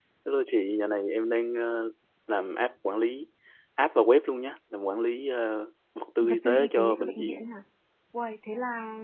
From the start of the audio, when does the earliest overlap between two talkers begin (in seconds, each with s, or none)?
6.2 s